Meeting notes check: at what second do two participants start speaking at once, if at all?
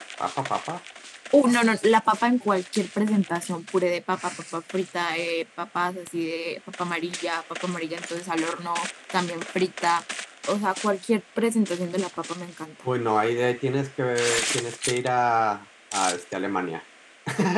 none

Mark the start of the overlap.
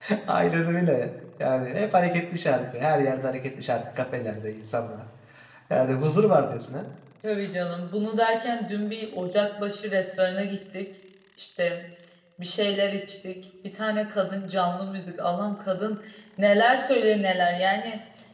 none

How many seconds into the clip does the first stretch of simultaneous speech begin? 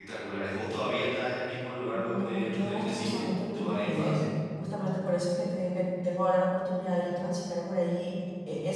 1.9 s

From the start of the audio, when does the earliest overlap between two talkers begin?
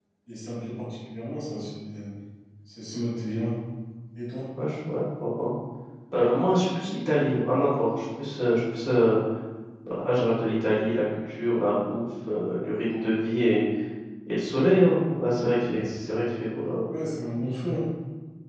none

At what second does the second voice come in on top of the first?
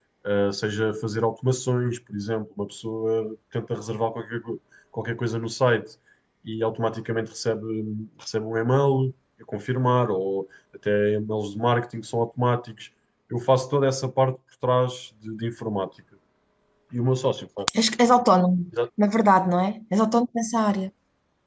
none

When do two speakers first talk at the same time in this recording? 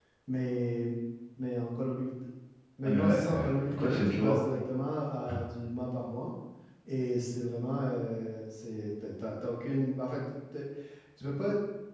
2.8 s

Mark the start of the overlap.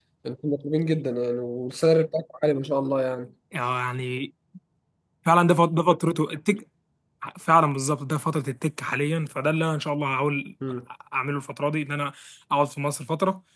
none

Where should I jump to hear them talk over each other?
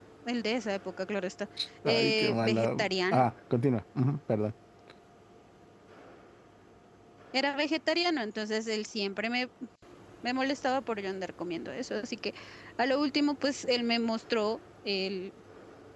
1.8 s

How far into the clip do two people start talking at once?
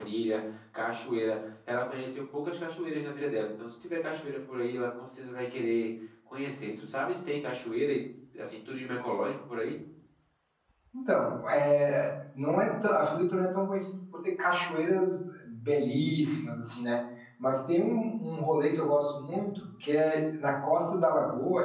none

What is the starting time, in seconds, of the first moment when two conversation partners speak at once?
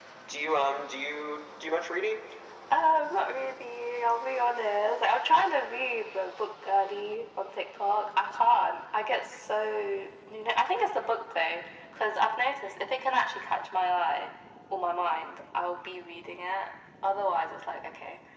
none

